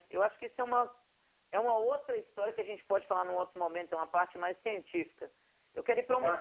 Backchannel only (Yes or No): Yes